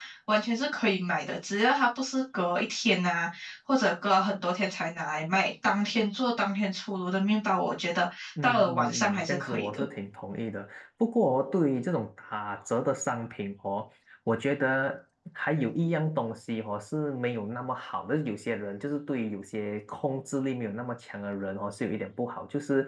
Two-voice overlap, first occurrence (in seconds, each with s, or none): 8.4 s